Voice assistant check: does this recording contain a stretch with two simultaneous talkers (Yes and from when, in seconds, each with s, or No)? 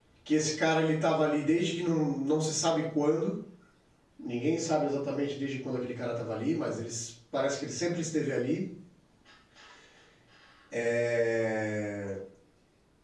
No